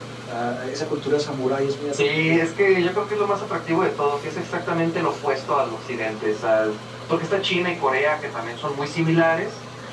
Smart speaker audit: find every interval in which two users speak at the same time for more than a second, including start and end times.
none

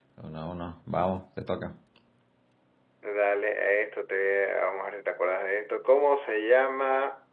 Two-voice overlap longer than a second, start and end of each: none

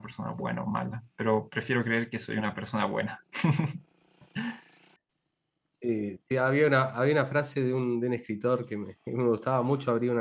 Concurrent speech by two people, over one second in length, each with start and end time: none

